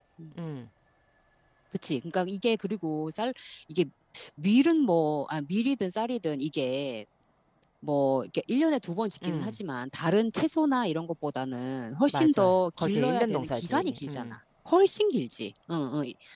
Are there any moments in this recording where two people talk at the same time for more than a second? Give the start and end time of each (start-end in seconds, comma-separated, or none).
12.1-14.3